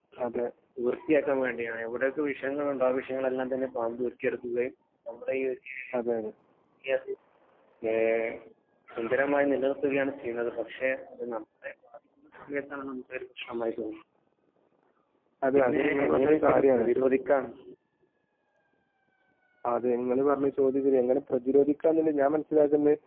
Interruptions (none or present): present